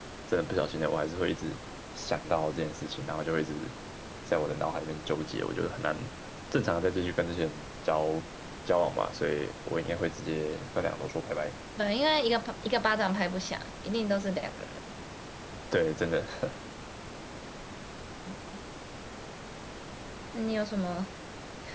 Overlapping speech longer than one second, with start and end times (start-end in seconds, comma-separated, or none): none